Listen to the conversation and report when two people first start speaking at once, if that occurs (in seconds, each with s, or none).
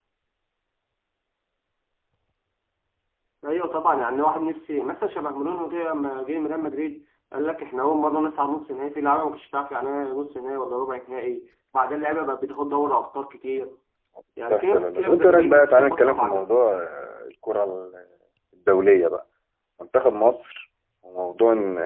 14.5 s